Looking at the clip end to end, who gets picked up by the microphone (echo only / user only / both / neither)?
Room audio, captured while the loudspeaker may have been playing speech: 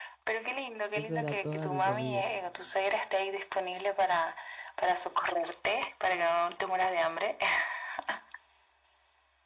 both